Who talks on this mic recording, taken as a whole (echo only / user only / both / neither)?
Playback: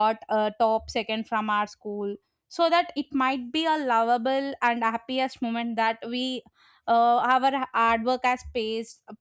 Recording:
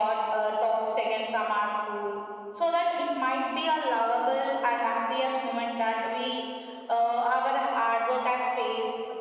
echo only